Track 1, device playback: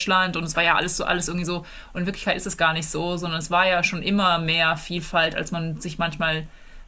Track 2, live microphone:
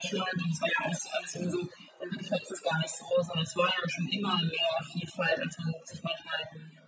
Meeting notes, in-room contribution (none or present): none